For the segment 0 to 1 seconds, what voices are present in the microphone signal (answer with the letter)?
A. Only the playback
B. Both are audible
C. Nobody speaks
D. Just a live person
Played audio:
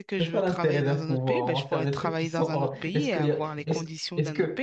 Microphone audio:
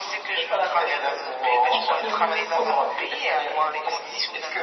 A